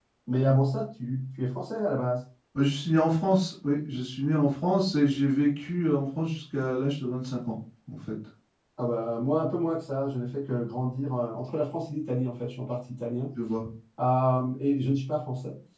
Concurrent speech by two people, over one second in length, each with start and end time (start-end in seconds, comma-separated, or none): none